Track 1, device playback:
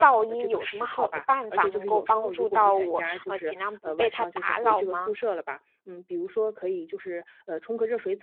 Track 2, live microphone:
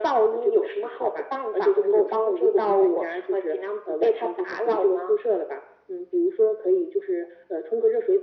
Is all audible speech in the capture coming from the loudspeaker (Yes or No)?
Yes